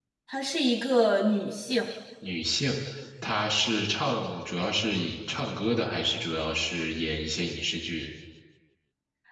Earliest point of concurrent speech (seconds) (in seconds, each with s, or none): none